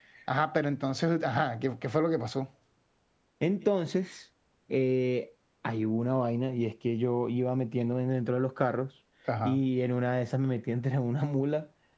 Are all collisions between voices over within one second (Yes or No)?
Yes